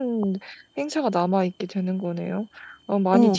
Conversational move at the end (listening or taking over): taking over